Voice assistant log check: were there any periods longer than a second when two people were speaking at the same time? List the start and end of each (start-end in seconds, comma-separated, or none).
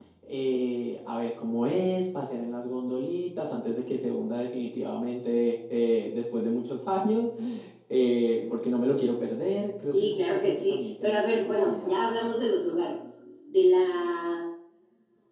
9.8-12.0